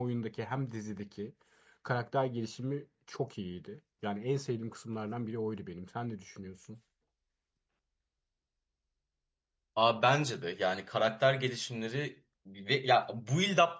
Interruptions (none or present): none